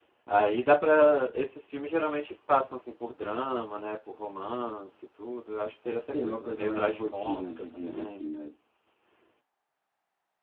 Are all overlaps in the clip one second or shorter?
No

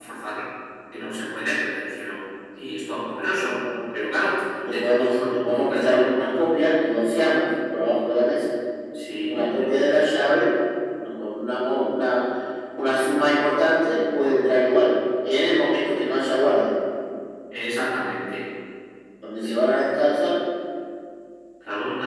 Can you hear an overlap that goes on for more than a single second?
Yes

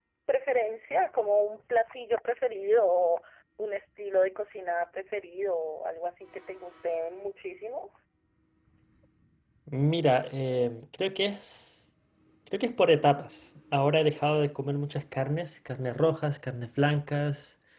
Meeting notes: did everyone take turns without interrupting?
Yes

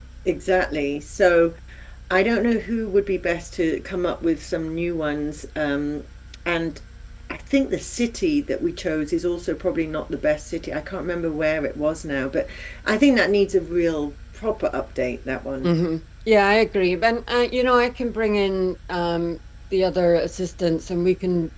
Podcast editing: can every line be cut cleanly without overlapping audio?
Yes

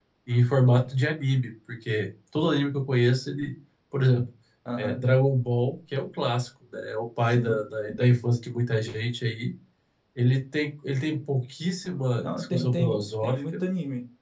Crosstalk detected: Yes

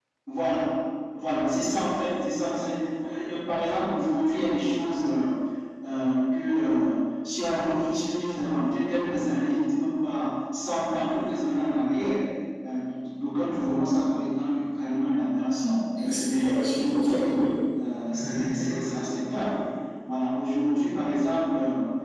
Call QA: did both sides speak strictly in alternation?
No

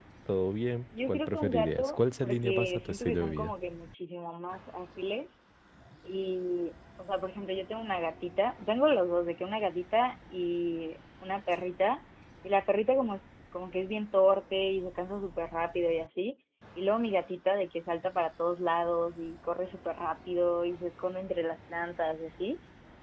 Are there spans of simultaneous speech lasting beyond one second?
Yes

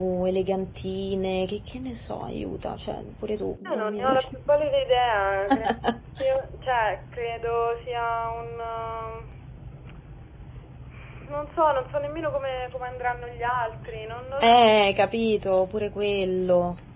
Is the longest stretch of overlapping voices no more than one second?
Yes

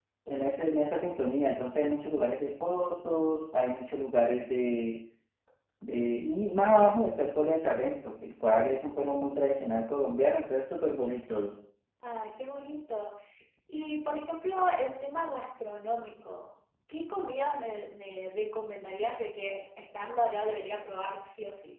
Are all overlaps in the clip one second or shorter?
Yes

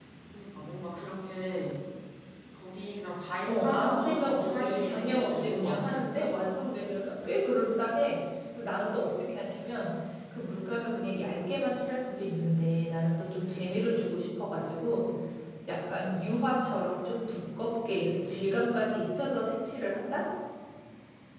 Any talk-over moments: Yes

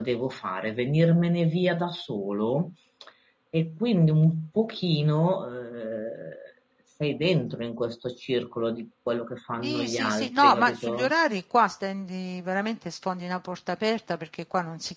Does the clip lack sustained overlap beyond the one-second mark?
No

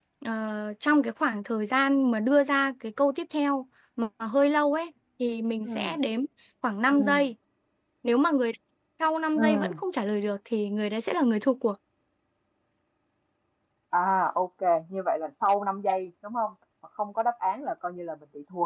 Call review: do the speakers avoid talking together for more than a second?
Yes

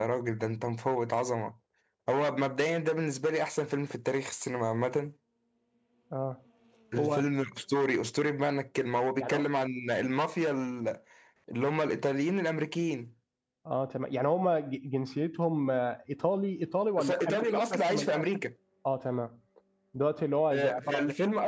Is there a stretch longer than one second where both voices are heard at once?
Yes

